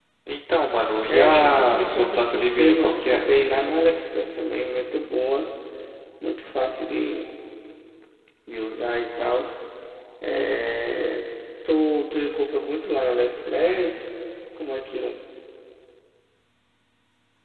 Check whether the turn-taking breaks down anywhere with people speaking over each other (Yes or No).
Yes